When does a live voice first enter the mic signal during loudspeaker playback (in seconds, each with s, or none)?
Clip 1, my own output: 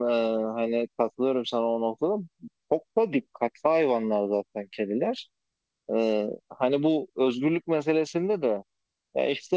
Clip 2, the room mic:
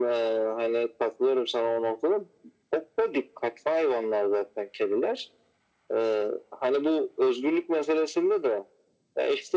none